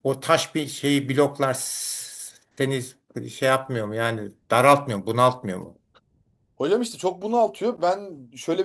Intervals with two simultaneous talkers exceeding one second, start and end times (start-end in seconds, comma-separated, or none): none